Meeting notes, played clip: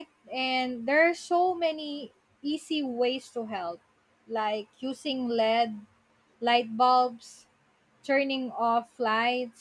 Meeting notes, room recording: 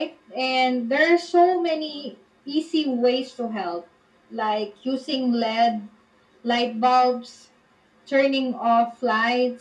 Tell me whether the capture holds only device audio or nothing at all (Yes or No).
Yes